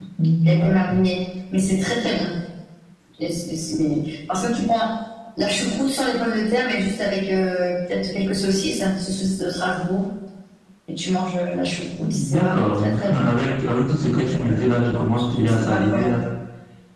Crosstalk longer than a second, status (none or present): present